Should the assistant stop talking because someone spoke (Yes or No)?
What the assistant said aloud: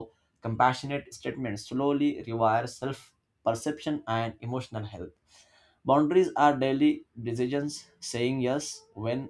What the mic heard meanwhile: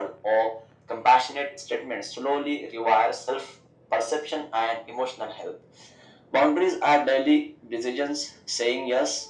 No